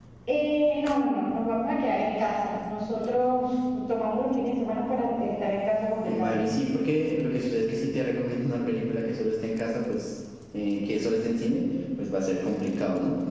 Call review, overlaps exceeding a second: none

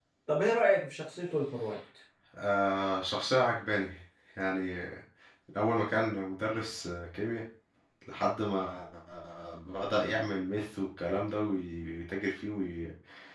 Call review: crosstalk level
none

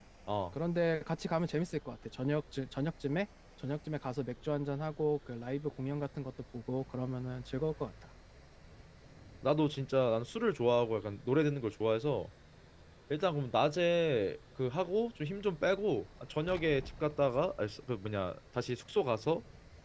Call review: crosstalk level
none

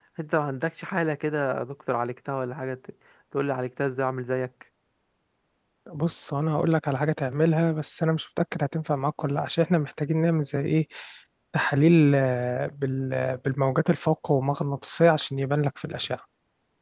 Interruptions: none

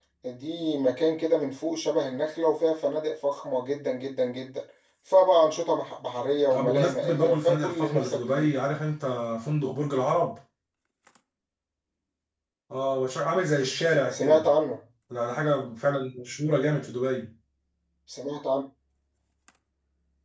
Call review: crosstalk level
present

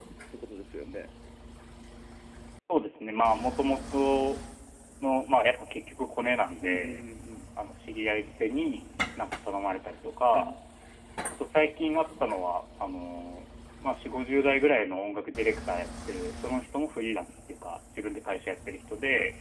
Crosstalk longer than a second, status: none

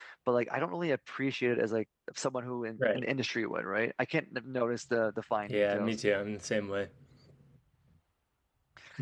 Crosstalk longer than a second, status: none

